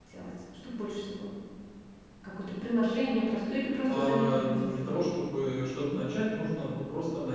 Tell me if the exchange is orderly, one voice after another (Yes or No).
No